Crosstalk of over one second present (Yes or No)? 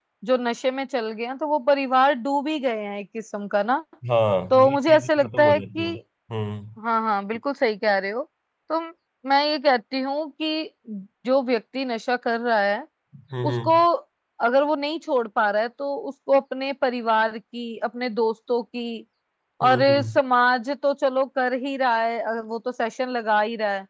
Yes